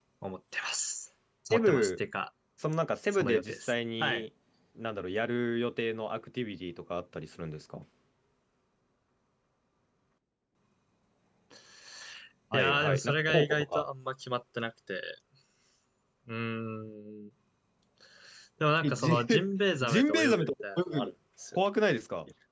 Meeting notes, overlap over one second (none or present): present